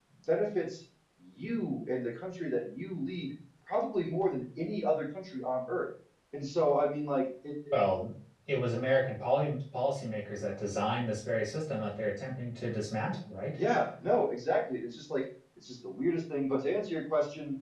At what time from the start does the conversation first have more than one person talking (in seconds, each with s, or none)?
none